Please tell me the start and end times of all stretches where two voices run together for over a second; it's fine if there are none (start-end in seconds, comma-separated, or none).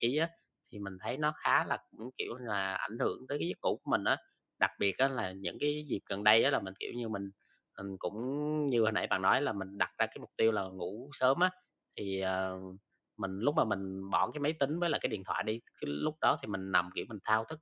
none